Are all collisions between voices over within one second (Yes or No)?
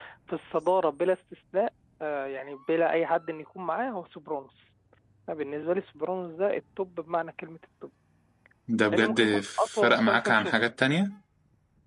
No